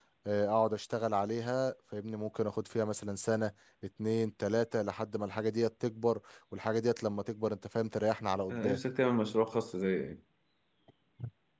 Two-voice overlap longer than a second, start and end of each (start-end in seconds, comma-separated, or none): none